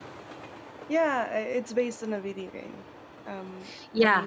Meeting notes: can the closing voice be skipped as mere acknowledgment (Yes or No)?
No